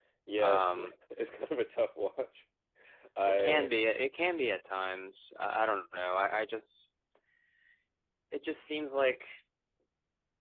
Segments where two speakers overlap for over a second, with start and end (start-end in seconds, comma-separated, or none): none